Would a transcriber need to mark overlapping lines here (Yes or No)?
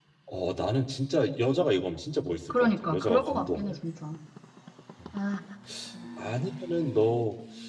Yes